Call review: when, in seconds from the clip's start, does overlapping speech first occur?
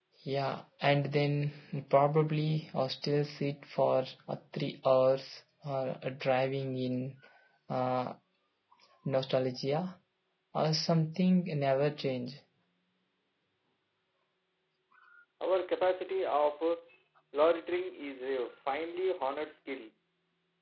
none

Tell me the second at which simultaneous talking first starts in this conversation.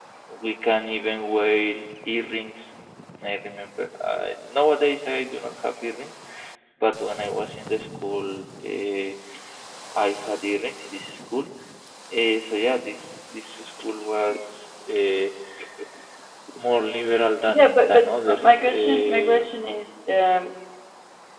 17.5 s

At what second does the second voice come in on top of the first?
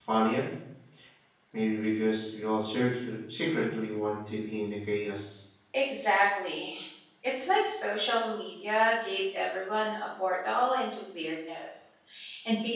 none

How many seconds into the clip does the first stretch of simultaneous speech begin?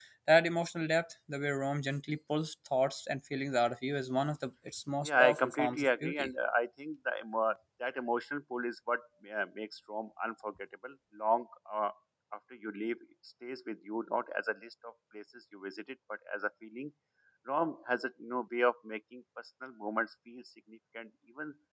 5.0 s

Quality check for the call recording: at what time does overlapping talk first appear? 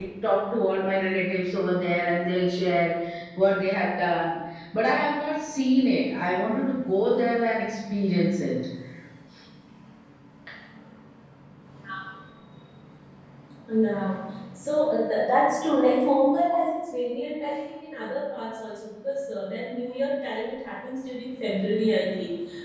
none

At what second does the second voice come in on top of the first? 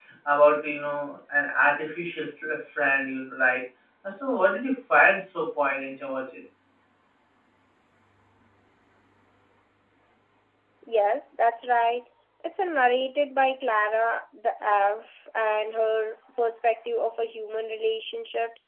none

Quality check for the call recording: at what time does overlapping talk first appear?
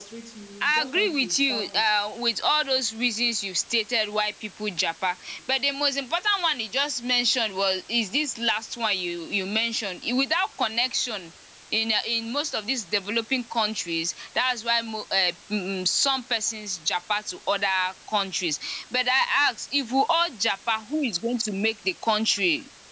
0.6 s

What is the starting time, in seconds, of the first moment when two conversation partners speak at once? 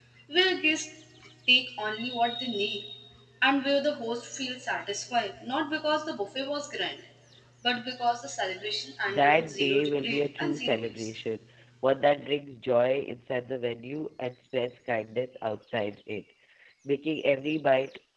9.1 s

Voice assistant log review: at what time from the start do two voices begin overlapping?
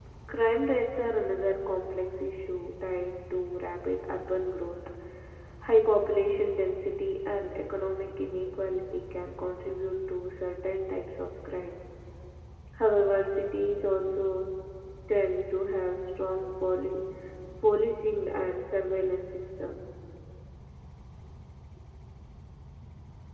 none

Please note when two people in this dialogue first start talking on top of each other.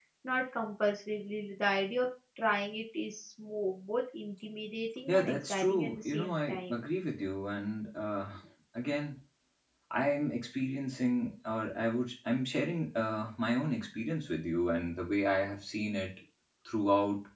5.1 s

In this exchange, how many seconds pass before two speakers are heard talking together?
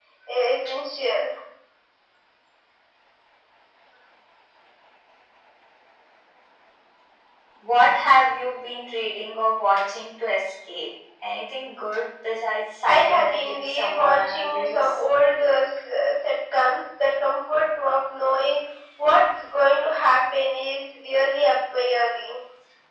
12.8 s

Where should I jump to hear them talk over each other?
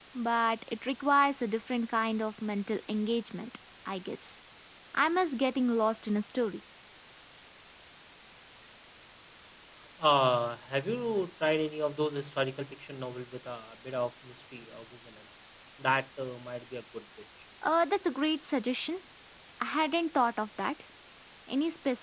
none

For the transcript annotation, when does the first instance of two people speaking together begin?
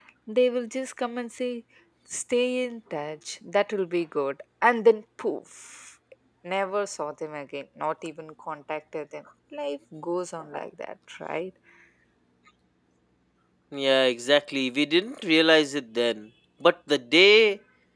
none

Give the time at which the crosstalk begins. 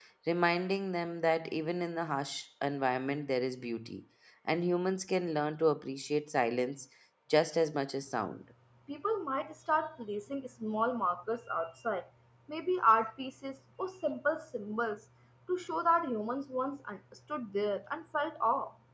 none

